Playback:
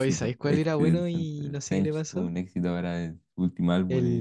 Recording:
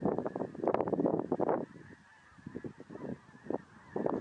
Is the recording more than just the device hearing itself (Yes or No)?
No